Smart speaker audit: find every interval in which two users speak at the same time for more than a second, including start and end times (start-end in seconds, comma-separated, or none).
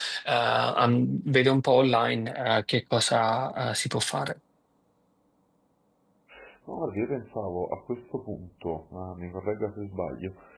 none